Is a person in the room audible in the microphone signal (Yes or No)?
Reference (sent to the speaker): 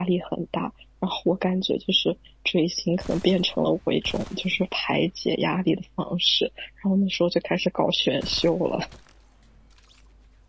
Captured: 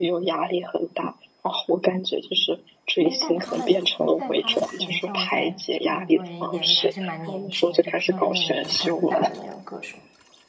Yes